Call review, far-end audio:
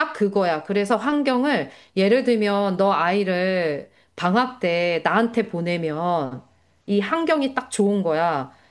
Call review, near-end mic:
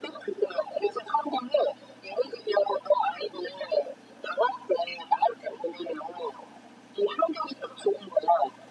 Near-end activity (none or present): none